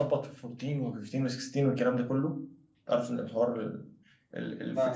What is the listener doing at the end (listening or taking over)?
listening